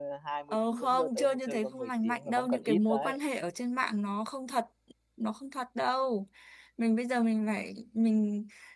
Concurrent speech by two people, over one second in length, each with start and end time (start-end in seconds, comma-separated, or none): 0.5-3.2